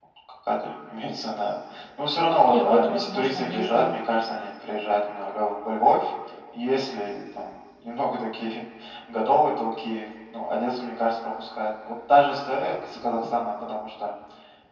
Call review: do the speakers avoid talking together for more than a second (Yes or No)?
No